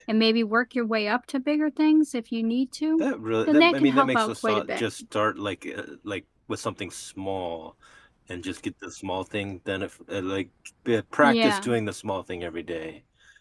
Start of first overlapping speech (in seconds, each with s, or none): 3.5 s